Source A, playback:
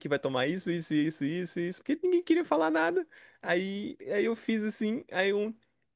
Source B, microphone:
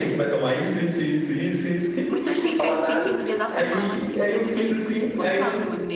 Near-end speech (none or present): present